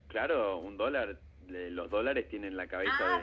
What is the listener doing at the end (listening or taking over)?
taking over